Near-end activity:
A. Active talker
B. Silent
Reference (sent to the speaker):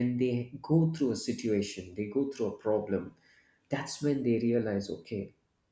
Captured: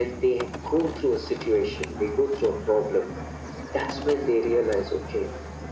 B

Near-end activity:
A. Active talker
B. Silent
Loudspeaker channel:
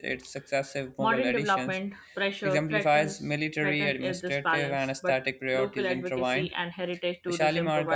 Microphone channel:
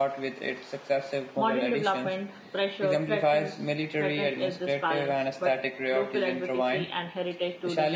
B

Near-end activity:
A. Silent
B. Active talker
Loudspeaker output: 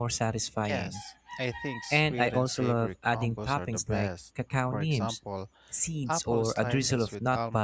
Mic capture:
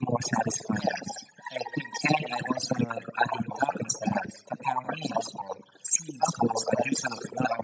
A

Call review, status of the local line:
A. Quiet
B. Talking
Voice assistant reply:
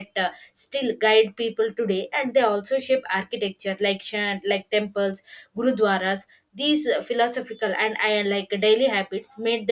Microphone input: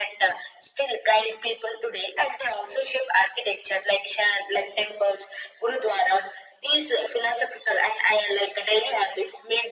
A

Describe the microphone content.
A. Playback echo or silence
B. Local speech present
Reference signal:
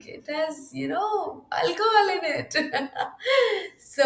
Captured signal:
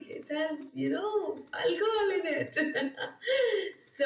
A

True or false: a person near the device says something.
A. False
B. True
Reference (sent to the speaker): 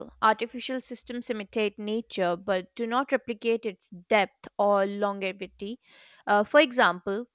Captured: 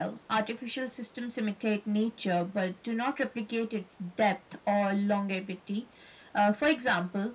A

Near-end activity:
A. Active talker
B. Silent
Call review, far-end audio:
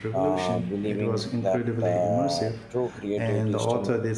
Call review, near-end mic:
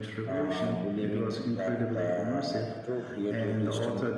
B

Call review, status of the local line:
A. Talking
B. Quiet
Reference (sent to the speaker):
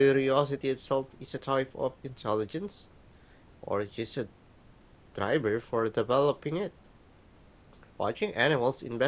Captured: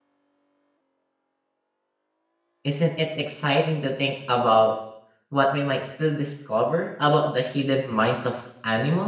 A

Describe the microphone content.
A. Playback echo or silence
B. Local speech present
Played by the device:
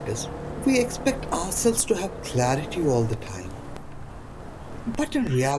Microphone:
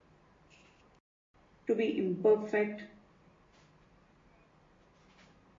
B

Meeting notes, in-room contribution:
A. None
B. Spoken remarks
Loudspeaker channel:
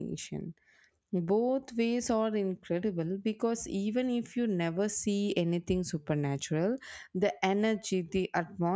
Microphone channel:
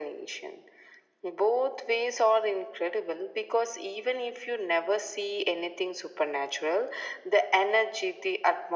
A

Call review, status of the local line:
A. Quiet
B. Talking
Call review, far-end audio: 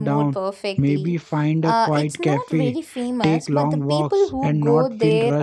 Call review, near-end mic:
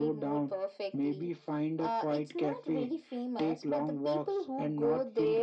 A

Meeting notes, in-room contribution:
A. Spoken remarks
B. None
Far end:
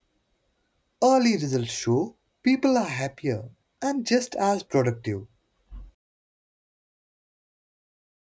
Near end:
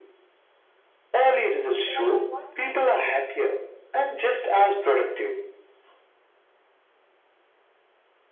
A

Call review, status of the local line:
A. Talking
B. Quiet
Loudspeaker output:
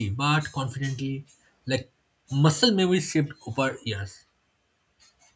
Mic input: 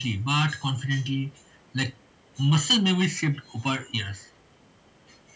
B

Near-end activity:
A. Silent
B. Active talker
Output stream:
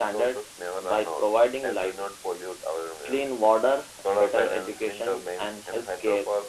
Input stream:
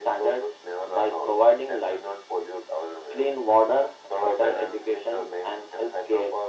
A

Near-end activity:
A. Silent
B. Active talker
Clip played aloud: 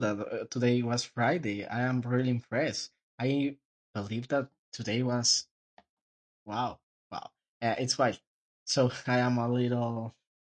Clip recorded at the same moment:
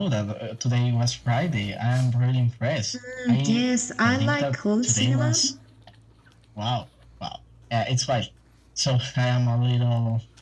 B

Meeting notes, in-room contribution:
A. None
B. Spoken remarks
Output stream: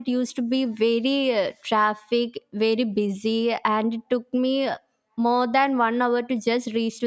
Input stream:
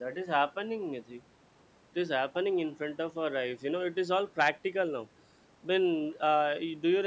B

